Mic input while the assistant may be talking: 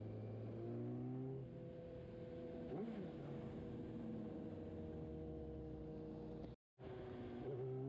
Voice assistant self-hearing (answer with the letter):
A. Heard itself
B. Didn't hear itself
B